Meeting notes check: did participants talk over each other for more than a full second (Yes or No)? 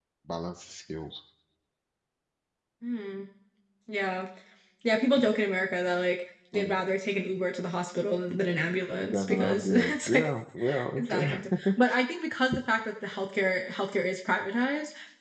Yes